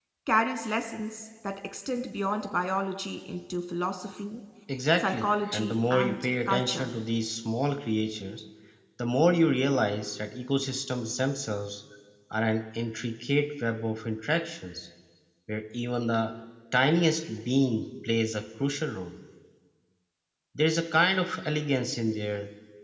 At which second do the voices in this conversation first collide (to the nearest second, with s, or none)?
5 s